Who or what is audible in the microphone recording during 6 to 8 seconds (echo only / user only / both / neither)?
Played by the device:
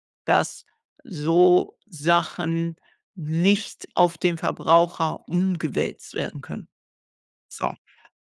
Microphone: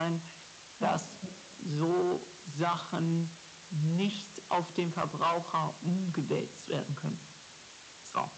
echo only